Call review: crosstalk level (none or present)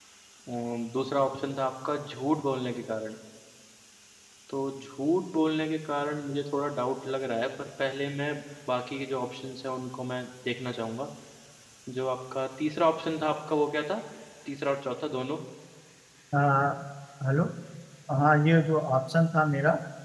none